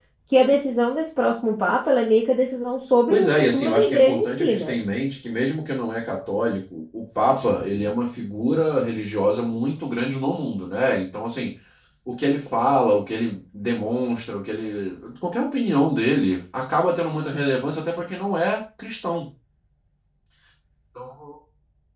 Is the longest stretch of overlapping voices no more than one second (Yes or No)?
No